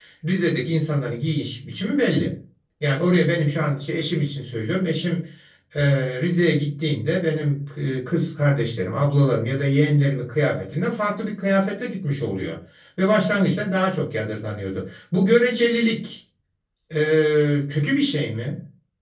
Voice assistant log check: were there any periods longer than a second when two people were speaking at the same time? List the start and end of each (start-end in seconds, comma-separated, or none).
none